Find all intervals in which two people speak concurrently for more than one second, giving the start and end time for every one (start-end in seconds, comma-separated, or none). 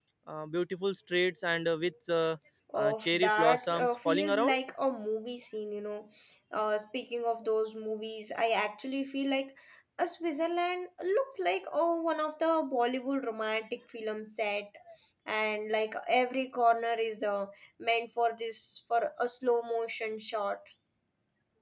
2.8-4.5